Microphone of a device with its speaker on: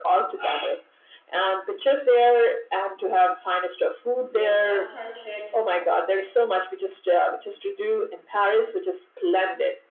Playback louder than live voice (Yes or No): Yes